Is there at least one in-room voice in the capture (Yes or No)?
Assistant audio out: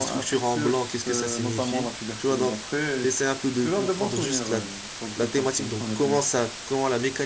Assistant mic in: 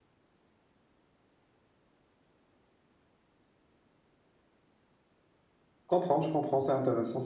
Yes